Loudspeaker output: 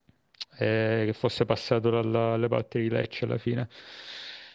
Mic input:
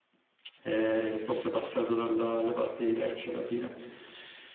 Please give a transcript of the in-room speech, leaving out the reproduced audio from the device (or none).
none